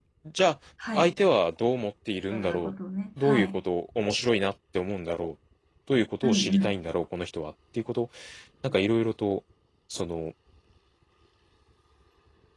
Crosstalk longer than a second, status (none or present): none